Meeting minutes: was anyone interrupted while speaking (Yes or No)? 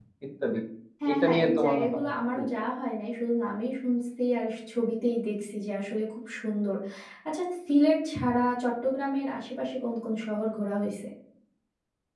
Yes